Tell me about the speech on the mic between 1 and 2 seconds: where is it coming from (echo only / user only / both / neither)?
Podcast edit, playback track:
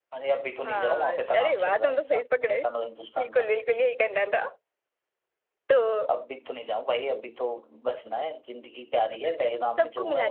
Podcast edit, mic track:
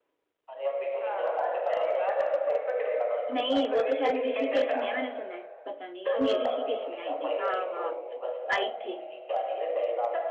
echo only